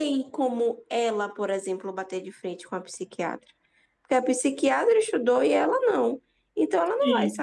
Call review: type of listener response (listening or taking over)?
listening